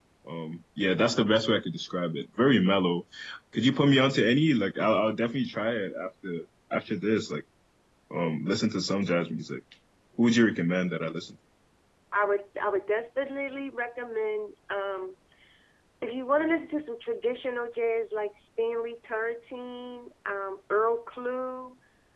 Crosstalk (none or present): none